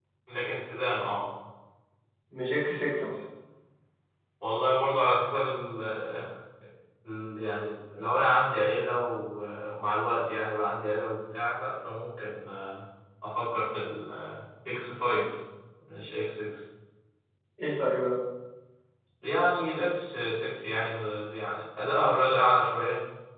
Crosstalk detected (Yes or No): No